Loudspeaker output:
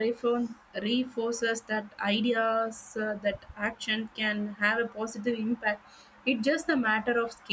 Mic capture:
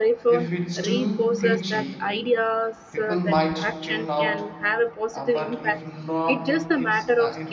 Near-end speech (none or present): present